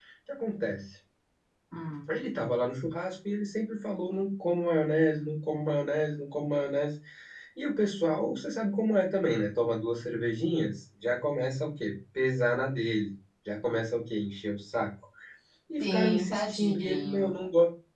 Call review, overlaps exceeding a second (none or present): present